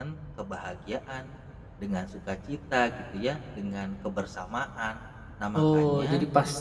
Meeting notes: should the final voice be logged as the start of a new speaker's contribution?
Yes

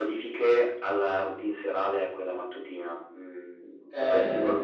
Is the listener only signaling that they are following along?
Yes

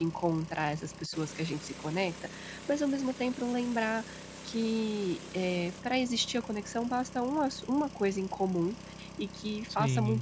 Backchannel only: Yes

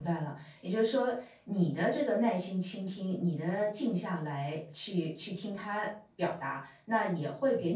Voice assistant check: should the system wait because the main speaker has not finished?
Yes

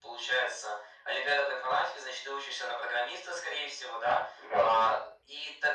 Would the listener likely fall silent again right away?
Yes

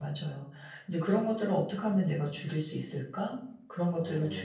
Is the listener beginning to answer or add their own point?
No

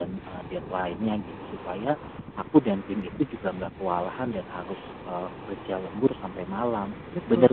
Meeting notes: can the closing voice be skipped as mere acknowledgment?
Yes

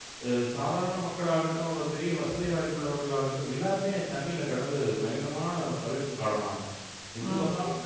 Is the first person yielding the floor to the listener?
No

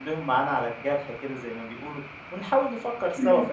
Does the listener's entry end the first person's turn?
No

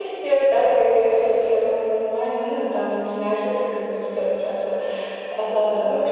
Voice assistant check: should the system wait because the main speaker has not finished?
No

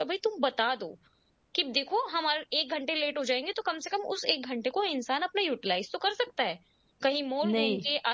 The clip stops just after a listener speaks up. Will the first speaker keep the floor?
Yes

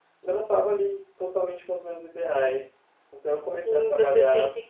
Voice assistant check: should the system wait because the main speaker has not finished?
No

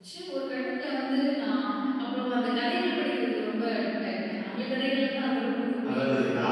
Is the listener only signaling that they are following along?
No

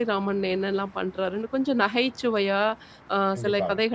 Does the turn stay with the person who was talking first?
Yes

